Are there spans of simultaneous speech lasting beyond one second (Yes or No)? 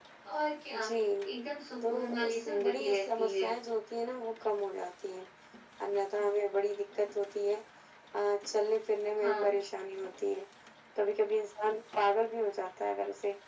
Yes